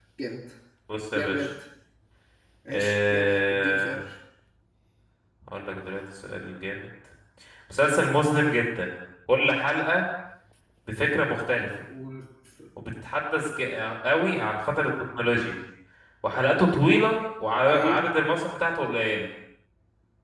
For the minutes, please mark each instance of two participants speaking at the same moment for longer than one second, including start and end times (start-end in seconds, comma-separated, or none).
2.7-4.0